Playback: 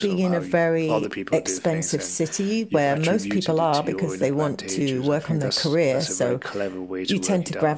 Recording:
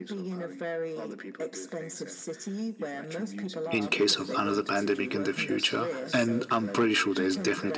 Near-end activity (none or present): present